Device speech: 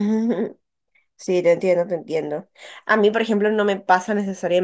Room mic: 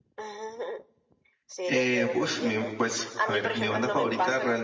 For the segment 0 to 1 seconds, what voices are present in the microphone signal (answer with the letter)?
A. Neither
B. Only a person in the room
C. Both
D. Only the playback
D